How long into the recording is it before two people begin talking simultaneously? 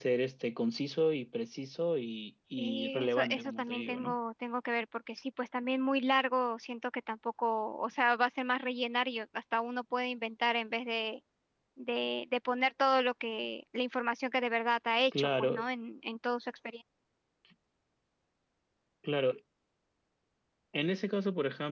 3 s

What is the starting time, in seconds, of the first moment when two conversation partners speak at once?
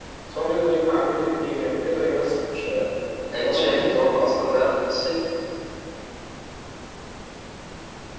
3 s

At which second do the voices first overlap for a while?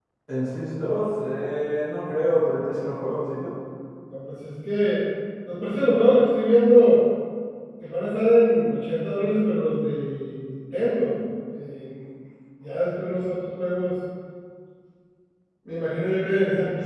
none

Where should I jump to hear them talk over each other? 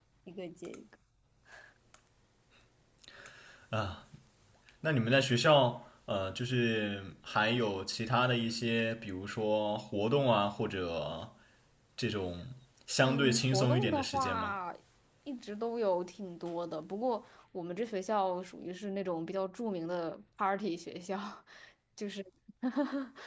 13 s

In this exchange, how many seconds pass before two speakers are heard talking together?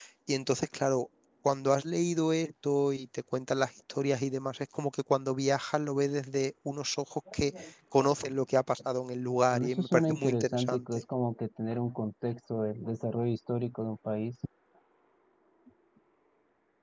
10 s

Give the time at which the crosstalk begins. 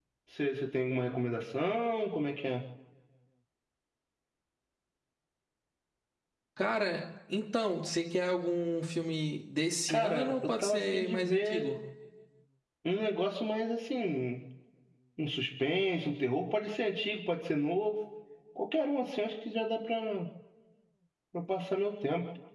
10 s

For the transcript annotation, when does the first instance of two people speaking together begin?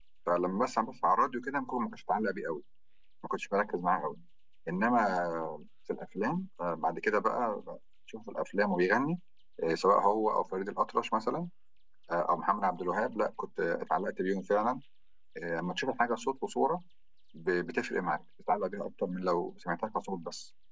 none

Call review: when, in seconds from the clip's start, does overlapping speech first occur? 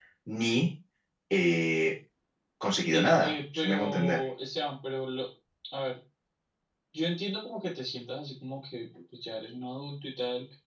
3 s

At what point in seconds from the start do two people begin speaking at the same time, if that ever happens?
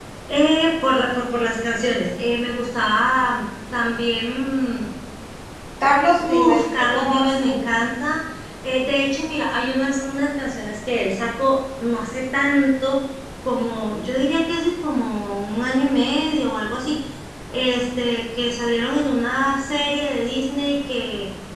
6 s

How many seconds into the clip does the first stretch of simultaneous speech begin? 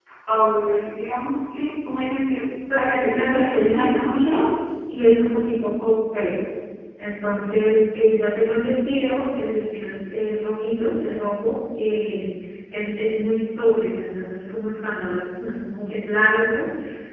3 s

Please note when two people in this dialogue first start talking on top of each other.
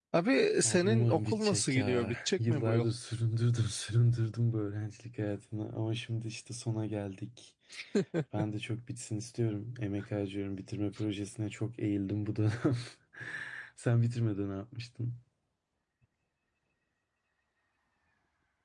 1 s

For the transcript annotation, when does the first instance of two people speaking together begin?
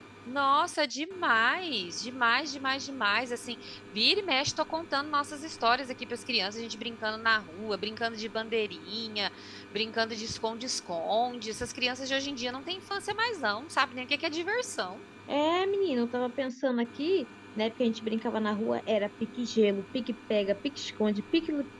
none

